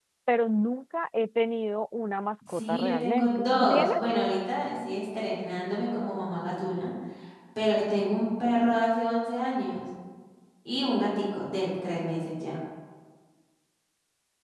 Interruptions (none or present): present